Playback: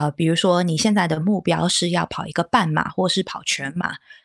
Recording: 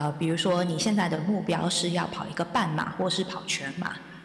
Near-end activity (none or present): none